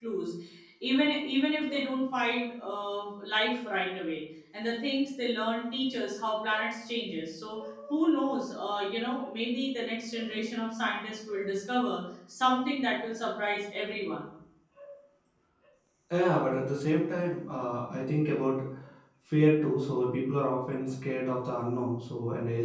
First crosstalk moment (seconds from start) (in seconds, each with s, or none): none